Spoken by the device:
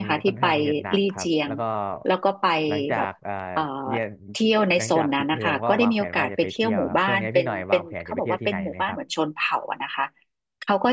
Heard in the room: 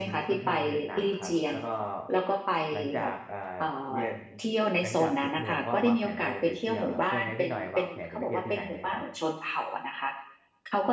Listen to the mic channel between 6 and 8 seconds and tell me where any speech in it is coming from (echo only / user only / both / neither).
echo only